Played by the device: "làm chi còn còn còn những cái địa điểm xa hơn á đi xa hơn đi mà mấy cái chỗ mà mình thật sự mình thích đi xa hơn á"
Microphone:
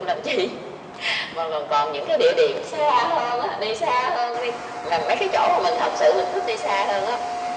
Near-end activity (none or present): none